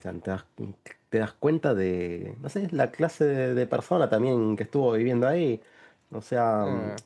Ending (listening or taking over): listening